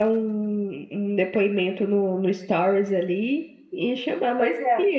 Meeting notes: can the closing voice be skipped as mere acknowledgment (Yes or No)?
Yes